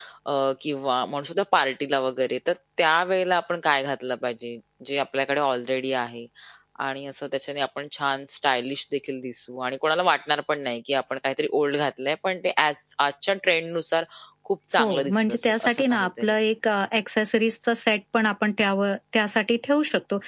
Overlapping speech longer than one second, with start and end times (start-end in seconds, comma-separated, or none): 14.8-16.4